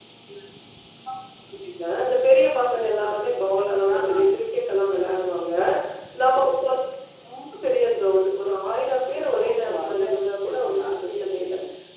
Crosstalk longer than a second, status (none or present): present